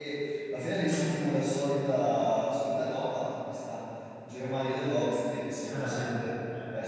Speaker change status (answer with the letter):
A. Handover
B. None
B